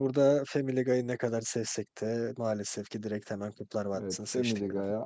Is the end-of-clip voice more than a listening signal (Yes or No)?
Yes